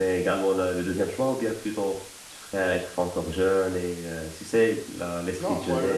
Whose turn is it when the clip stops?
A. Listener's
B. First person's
A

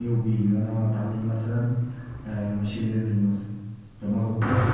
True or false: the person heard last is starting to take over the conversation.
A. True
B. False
B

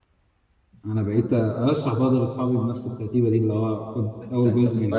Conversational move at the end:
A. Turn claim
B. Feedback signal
A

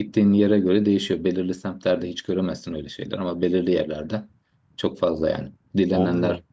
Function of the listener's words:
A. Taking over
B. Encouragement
B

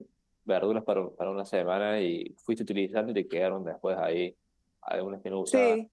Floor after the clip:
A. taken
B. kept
B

